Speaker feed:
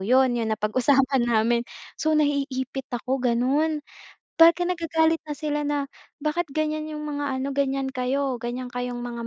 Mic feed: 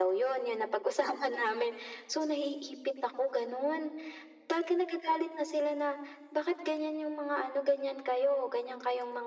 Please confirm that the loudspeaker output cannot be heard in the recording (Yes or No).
No